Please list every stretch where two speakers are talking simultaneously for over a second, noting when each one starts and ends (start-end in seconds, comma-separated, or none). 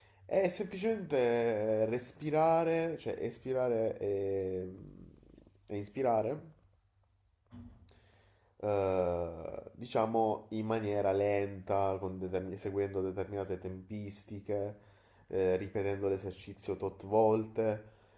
none